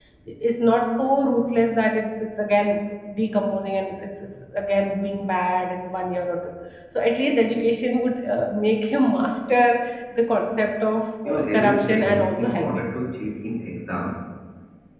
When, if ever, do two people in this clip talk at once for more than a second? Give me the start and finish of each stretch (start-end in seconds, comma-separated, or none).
11.2-12.8